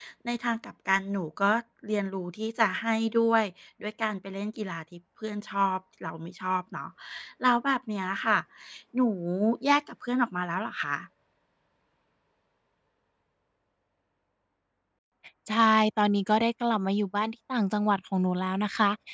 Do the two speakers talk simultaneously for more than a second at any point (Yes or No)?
No